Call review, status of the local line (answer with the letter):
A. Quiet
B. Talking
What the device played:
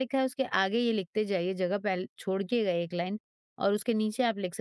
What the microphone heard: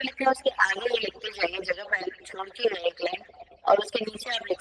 A